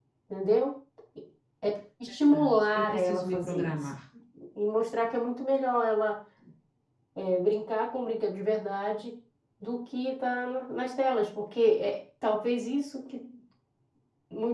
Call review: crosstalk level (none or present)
present